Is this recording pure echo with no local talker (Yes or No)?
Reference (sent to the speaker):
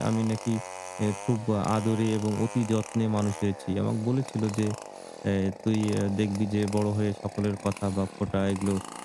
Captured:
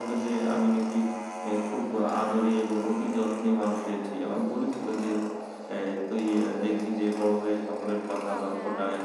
No